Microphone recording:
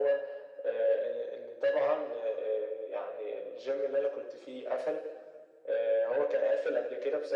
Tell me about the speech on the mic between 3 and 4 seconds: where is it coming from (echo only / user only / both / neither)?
echo only